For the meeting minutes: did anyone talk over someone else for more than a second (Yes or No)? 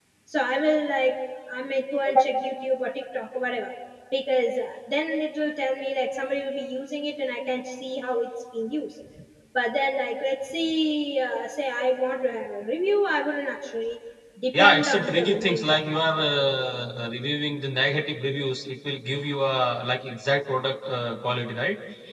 Yes